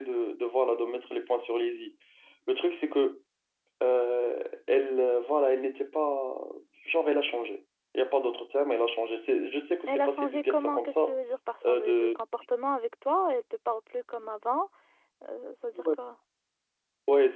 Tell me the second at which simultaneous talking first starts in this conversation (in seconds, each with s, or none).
9.9 s